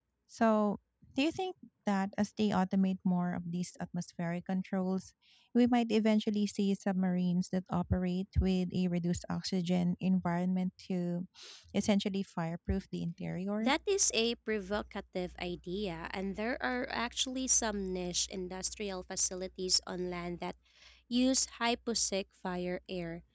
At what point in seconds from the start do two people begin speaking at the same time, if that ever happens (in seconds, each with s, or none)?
none